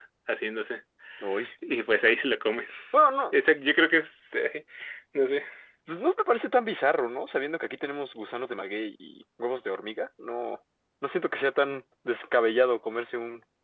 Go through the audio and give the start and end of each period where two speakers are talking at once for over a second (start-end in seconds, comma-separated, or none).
none